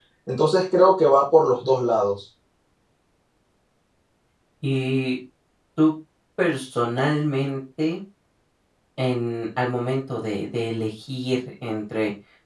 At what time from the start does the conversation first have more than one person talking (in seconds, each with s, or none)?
none